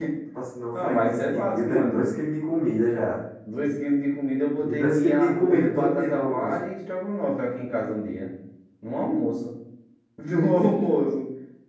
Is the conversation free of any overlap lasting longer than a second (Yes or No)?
No